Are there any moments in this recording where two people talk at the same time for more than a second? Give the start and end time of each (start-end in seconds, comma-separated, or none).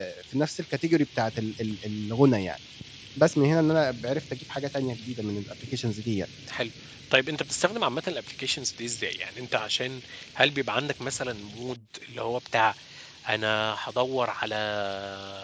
none